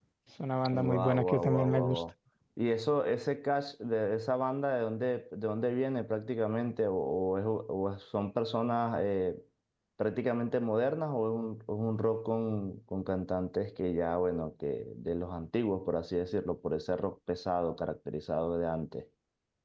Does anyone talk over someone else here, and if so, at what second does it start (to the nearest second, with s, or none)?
1 s